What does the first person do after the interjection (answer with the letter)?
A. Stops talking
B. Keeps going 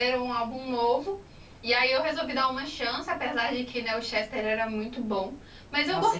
A